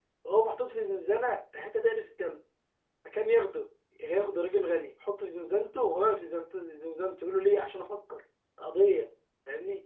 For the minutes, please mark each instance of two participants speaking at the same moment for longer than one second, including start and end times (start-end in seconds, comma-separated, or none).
none